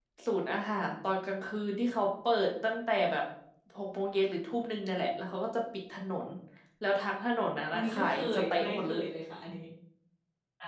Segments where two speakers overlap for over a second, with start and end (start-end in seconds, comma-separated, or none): 7.7-9.0